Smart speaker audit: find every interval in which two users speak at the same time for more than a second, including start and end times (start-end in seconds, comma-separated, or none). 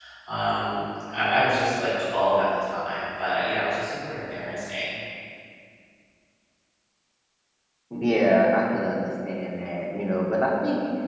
none